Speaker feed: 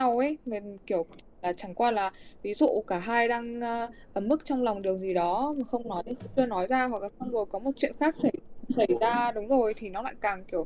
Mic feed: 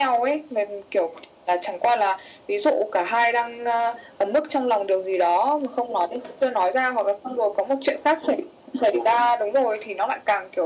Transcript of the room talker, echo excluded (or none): none